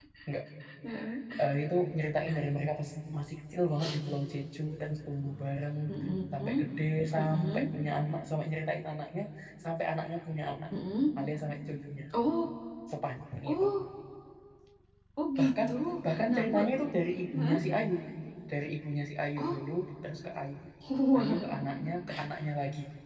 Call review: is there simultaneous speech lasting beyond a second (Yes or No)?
No